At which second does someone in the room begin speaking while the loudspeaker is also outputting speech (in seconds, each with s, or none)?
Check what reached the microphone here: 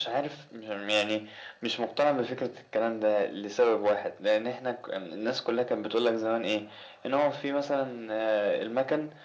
none